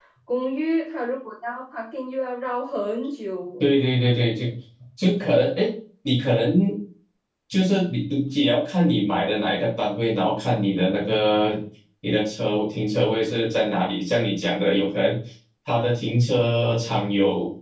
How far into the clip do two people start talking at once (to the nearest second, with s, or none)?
none